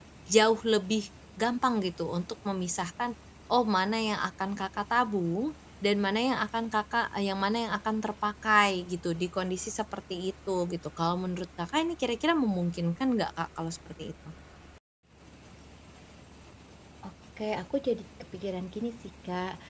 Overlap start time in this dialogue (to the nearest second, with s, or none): none